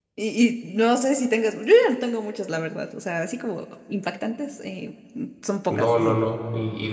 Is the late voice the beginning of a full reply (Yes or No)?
Yes